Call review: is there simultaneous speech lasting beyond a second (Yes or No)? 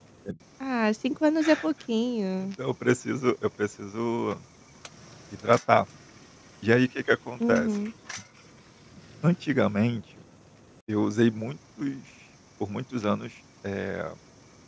No